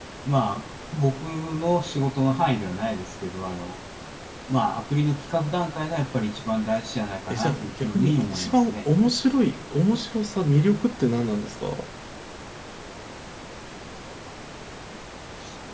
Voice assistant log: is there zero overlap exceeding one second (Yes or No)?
No